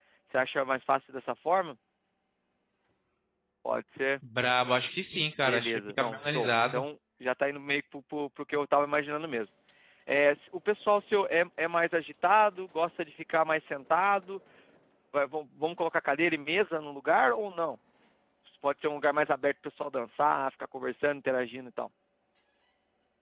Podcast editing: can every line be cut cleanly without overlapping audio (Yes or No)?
No